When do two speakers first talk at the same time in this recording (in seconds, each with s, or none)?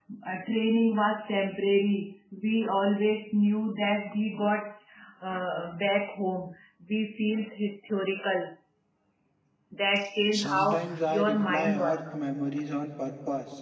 10.3 s